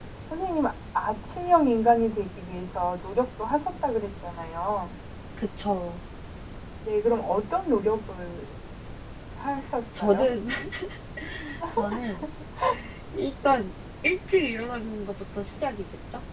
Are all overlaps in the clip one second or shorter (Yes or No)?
Yes